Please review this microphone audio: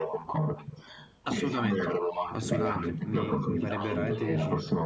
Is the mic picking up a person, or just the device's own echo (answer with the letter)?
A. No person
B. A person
B